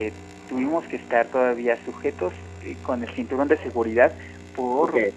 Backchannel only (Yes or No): Yes